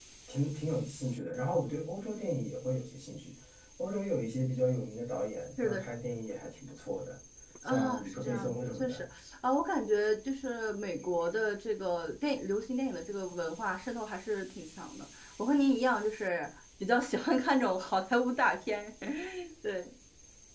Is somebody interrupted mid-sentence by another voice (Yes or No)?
Yes